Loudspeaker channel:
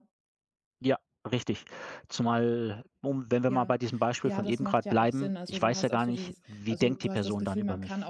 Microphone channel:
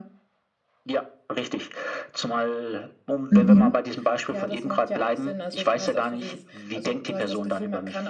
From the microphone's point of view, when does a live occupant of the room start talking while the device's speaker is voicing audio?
3 s

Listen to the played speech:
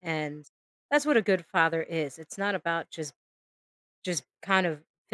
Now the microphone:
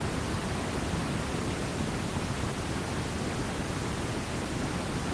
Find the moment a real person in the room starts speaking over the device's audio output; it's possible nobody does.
none

